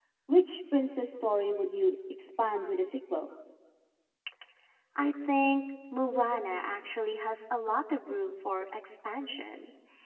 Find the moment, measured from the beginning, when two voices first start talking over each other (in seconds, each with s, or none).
none